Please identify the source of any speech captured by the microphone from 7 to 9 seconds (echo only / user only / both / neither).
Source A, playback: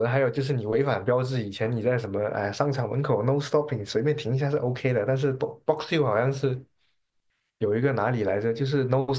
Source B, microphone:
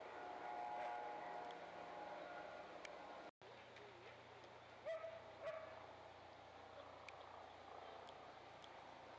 neither